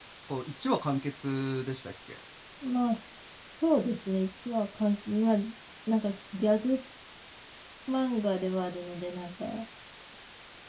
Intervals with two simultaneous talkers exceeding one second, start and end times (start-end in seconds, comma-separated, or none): none